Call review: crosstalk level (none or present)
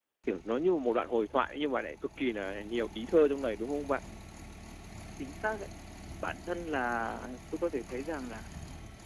none